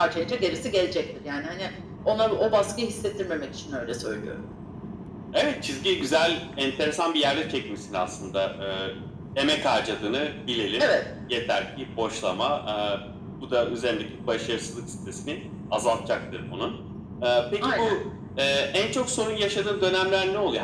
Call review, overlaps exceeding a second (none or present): none